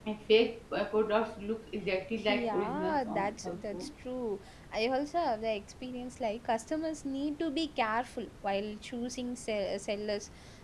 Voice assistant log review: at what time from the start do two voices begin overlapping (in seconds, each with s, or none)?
2.3 s